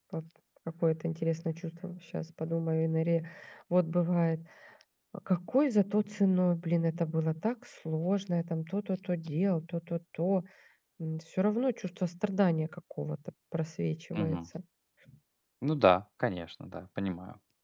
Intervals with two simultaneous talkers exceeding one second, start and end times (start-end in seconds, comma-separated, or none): none